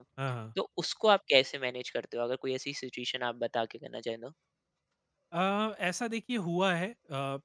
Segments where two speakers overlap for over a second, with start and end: none

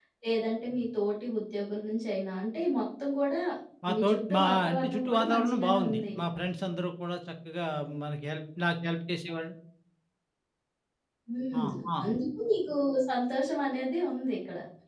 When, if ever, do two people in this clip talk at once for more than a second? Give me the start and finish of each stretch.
3.9-6.0

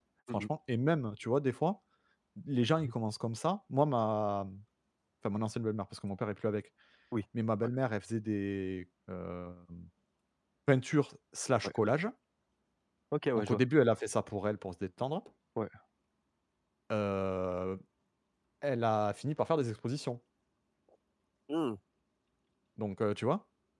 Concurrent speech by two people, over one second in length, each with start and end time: none

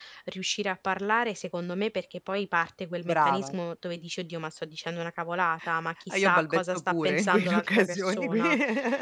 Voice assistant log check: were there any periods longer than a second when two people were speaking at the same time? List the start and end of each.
6.1-8.4

